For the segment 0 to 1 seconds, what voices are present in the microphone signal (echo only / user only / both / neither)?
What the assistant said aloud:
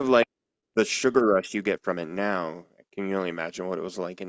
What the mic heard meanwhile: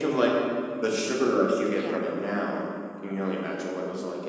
echo only